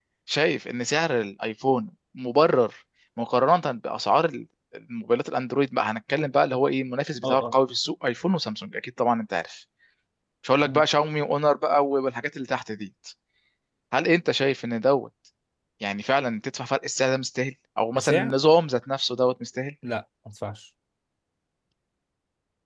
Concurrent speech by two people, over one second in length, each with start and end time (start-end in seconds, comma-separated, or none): none